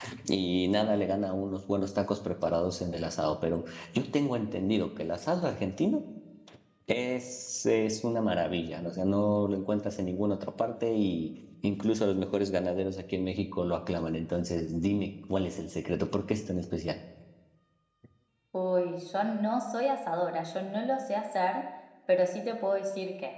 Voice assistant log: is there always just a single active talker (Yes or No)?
Yes